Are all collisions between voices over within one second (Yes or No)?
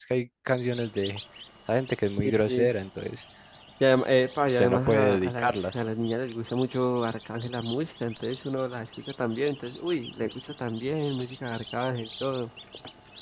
No